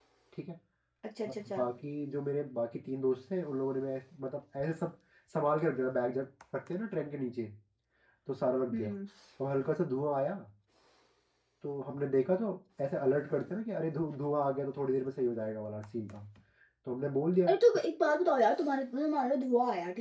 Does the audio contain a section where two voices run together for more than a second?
No

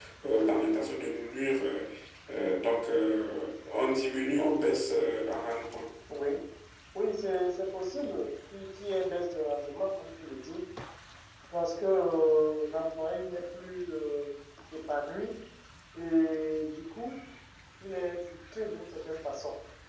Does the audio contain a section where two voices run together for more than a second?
No

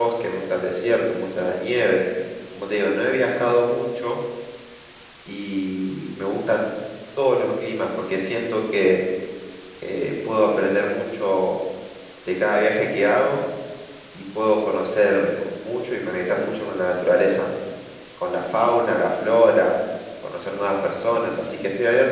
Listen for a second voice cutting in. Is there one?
No

